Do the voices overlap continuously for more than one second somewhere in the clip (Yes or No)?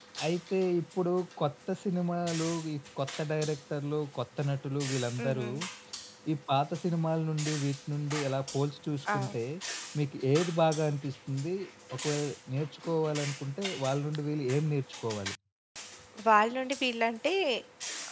No